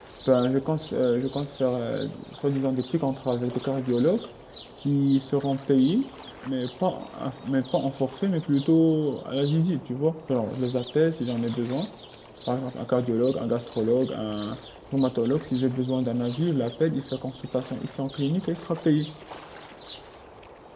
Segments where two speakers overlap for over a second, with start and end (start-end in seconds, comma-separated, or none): none